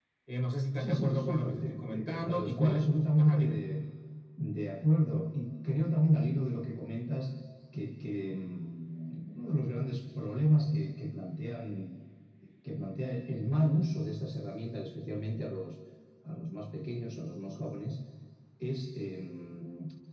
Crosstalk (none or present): present